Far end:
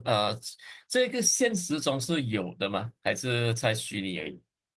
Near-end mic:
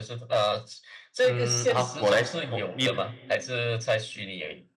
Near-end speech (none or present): present